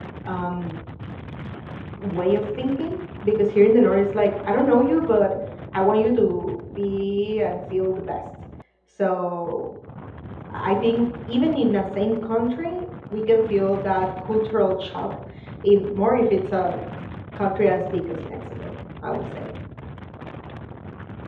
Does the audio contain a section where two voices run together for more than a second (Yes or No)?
No